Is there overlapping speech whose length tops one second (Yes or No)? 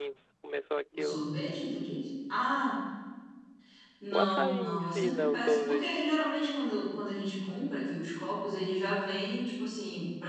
Yes